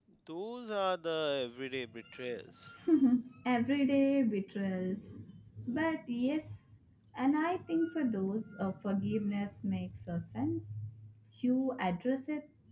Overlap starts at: none

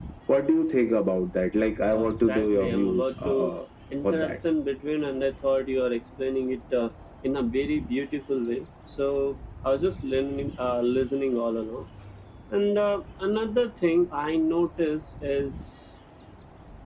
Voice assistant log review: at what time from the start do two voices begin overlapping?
1.9 s

